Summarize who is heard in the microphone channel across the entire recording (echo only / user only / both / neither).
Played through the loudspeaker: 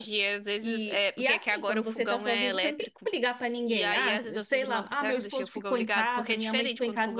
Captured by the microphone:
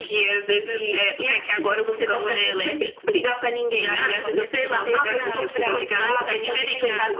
both